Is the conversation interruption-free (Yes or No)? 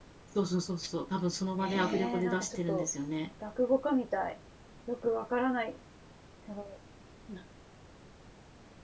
No